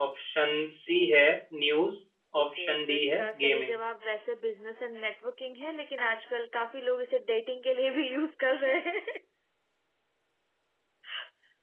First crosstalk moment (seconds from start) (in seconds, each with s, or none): 2.4 s